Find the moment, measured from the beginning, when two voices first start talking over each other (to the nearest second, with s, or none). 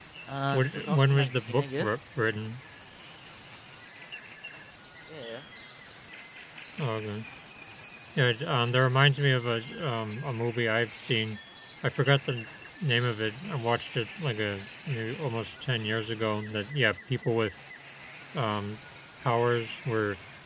1 s